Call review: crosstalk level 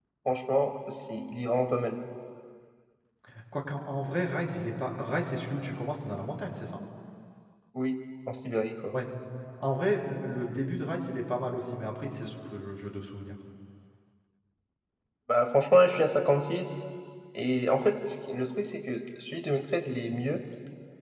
none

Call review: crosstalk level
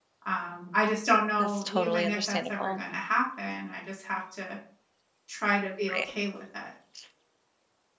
present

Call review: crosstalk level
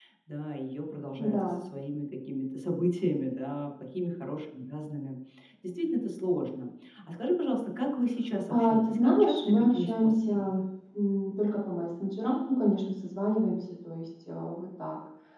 present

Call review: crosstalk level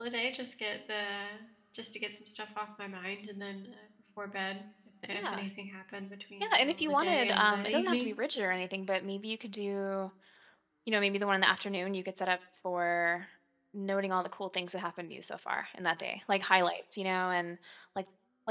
present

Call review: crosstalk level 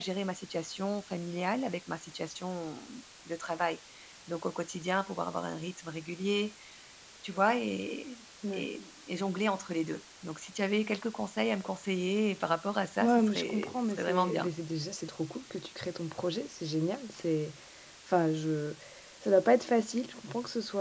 present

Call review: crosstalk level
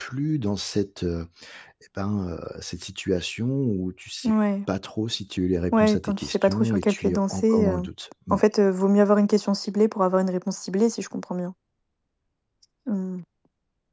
present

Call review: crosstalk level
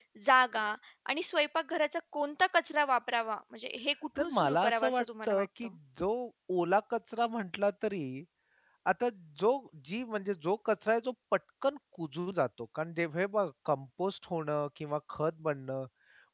present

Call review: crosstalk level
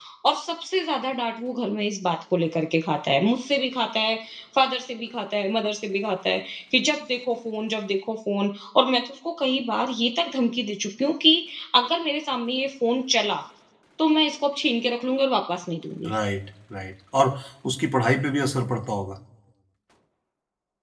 none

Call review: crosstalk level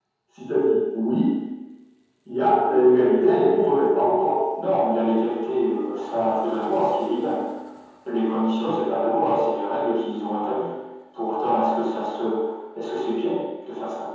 none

